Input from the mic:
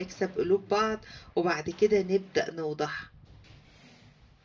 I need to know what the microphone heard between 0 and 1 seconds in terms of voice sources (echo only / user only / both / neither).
user only